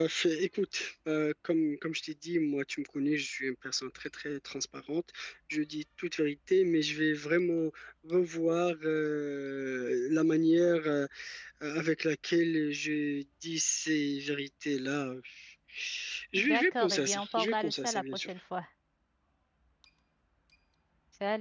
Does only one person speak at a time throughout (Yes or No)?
No